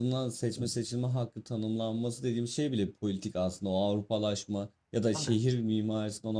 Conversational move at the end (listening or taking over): listening